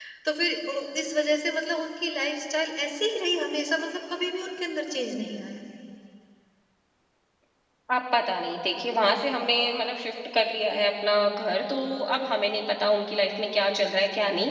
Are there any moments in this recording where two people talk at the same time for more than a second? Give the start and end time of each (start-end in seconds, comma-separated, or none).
none